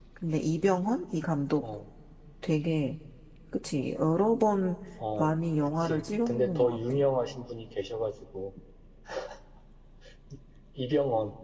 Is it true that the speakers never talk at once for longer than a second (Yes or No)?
No